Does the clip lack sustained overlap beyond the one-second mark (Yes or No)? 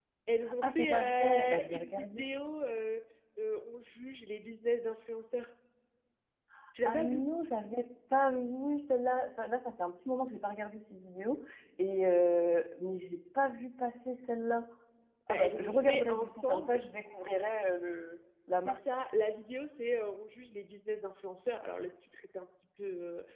No